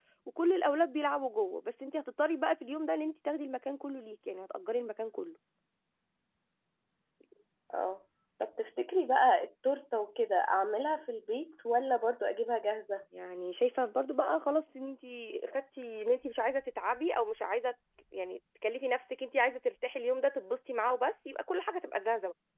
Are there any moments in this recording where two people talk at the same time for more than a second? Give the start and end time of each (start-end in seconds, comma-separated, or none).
none